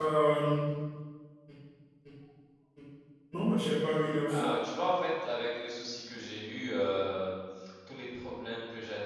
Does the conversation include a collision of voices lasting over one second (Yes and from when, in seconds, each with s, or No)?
No